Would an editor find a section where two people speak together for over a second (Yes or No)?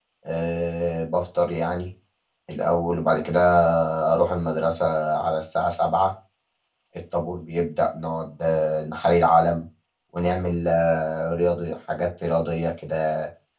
No